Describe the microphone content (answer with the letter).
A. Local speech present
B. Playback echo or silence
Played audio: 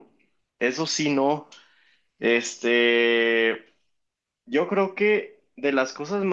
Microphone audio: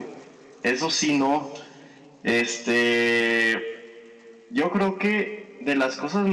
B